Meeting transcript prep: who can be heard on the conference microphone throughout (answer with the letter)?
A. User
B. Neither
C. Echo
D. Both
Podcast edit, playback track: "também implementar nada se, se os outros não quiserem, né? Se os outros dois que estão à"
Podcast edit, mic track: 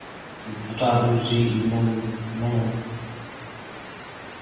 A